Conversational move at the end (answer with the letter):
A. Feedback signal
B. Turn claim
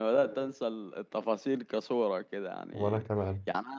A